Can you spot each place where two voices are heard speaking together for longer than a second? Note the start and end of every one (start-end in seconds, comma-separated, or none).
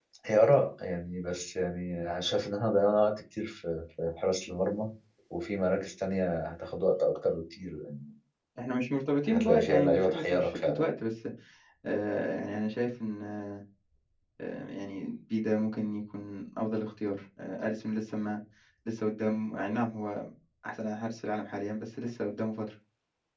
9.3-11.0